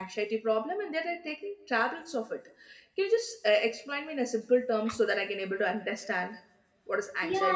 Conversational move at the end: taking over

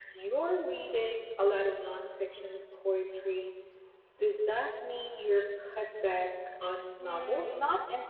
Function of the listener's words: taking over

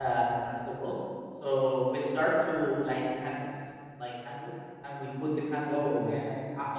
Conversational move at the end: listening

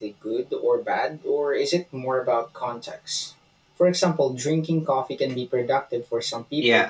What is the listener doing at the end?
taking over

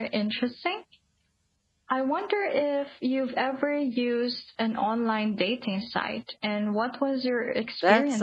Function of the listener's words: taking over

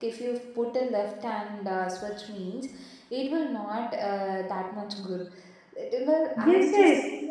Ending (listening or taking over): taking over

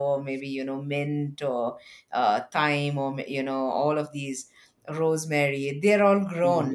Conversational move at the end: taking over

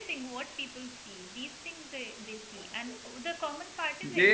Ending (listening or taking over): taking over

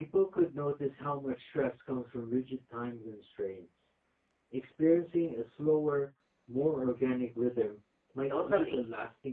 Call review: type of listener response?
taking over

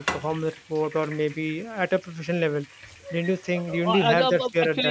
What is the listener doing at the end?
taking over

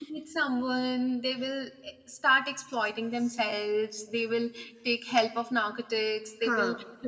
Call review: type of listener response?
listening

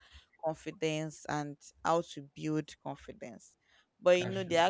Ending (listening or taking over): listening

